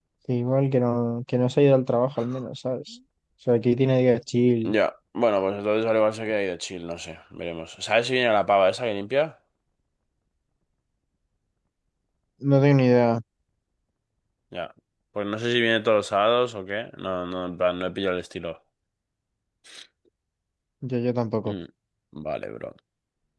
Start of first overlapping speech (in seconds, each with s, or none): none